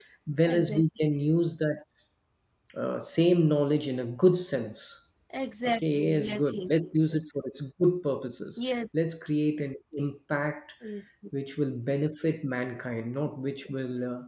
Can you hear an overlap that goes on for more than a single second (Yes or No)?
Yes